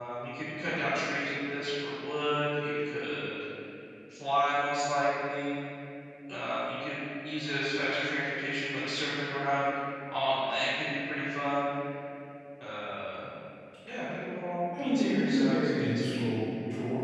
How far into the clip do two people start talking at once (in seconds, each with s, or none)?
14.8 s